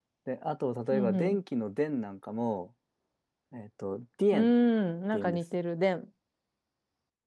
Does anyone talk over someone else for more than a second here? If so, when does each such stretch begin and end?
none

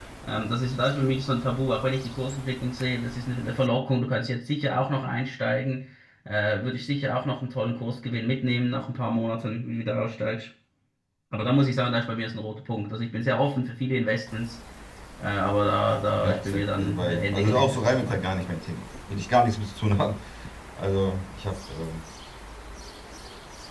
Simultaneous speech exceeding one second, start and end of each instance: 16.2-18.2

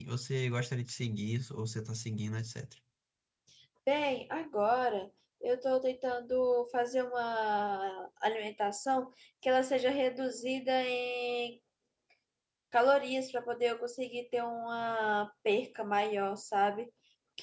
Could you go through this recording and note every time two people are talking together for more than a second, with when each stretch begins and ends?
none

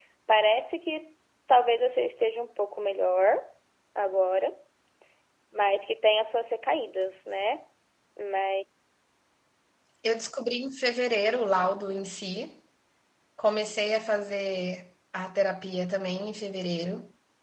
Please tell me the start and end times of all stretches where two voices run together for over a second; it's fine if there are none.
none

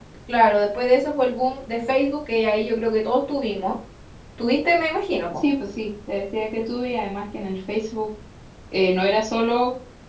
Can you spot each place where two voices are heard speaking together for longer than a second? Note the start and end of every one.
none

